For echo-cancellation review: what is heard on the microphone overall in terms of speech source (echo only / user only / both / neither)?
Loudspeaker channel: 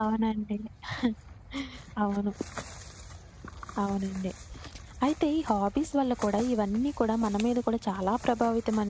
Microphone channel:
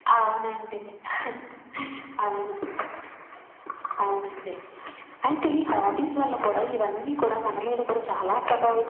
echo only